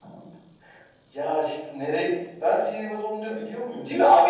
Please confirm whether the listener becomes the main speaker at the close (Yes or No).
Yes